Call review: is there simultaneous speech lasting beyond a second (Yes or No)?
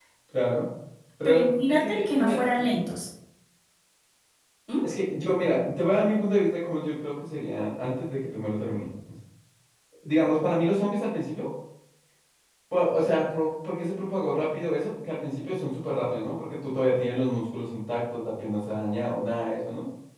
Yes